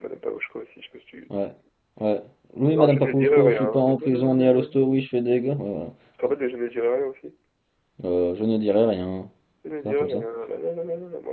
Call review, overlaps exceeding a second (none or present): present